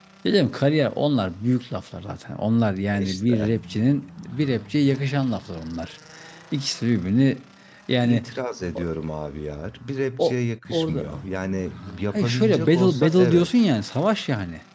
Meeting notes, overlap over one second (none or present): present